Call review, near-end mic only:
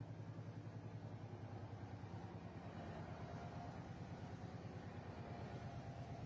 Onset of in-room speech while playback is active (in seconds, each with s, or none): none